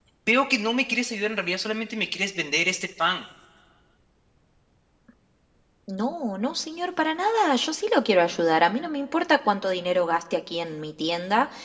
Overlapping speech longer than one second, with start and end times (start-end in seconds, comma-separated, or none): none